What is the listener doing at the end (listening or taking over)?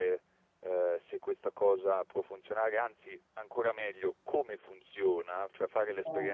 listening